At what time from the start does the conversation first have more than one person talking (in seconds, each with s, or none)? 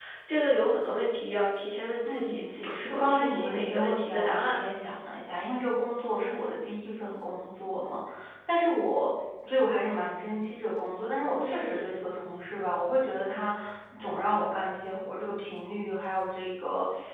2.0 s